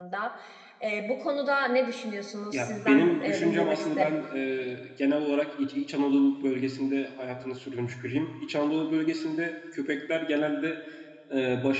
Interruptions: present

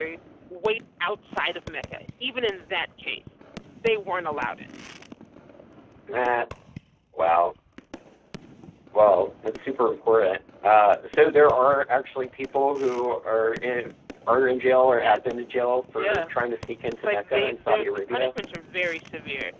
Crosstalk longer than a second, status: present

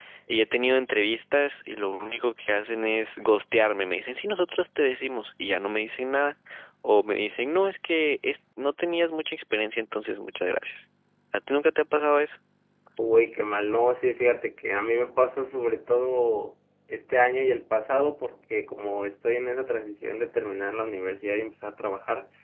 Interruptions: none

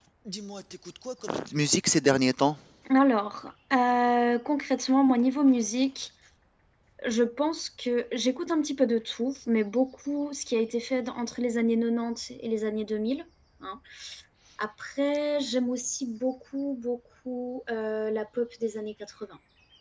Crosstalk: none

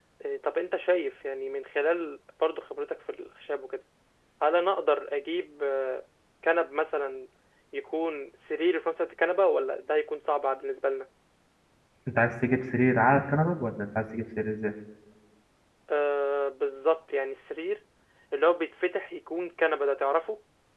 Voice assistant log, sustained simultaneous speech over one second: none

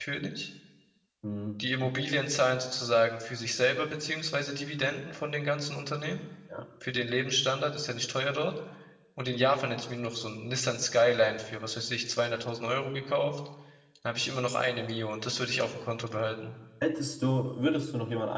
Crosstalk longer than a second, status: none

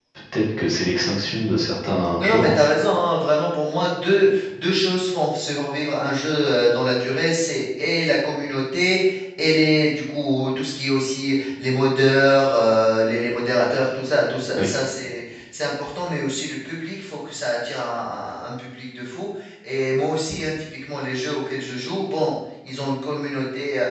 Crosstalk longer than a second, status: none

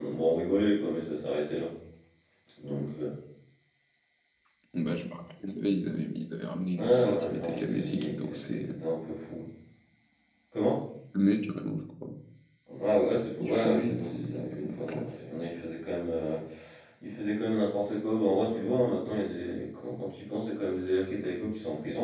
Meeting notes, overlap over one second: present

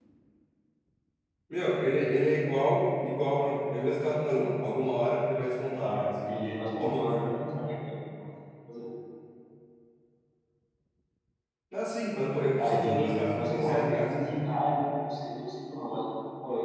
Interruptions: present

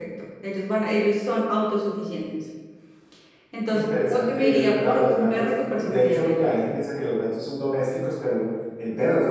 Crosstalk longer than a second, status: present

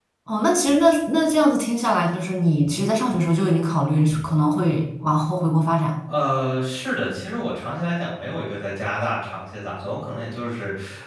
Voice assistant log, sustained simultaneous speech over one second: none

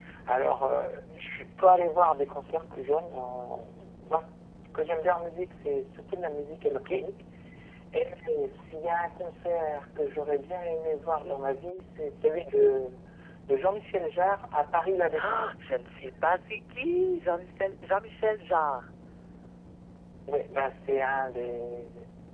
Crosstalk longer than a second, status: none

